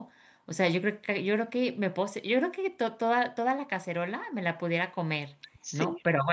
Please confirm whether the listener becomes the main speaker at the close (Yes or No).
No